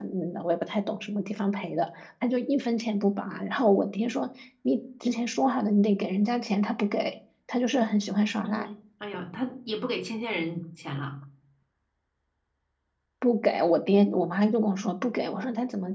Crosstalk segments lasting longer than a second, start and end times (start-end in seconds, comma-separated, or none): none